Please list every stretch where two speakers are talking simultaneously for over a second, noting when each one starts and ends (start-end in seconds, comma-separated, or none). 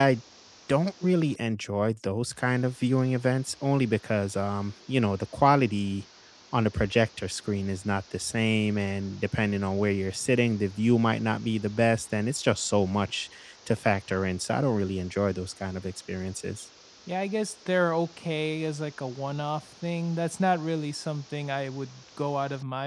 none